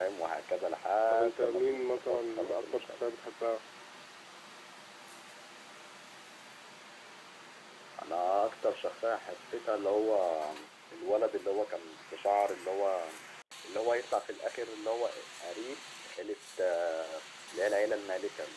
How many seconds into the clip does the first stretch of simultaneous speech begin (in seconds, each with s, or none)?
1.1 s